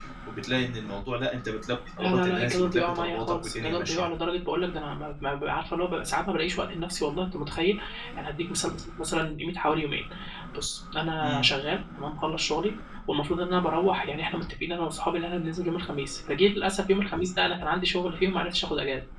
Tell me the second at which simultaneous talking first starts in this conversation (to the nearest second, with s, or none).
2 s